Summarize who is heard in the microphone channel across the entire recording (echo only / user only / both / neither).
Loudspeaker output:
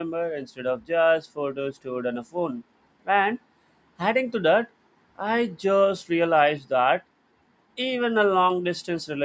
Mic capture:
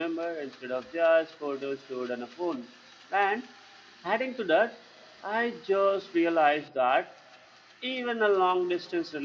echo only